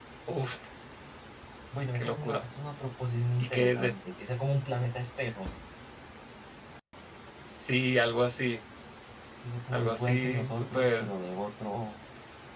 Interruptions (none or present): present